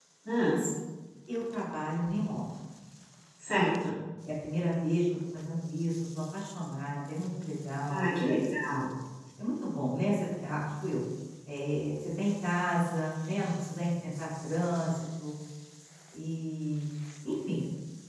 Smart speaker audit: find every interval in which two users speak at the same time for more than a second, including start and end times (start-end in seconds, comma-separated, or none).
none